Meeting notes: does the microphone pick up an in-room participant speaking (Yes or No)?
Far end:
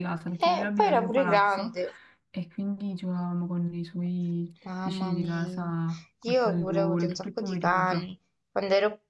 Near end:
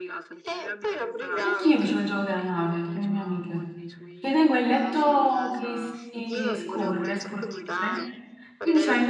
Yes